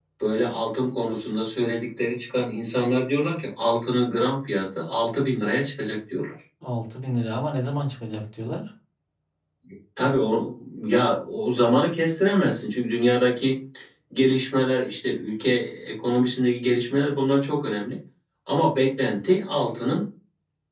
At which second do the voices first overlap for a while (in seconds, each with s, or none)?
none